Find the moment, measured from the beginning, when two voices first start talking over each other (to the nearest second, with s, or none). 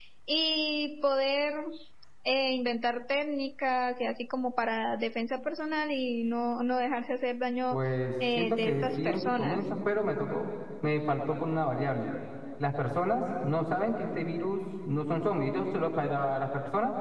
8 s